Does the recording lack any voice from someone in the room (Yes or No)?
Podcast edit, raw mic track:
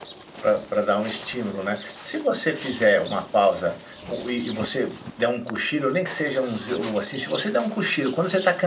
No